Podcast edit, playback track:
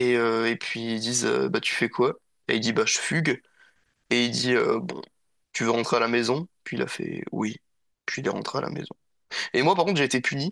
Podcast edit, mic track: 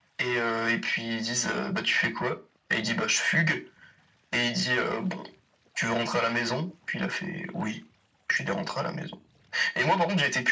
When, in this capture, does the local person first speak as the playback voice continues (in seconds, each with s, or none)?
none